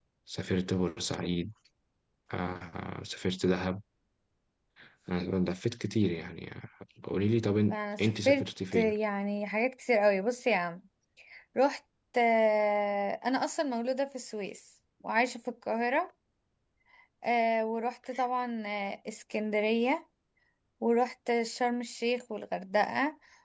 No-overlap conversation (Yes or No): No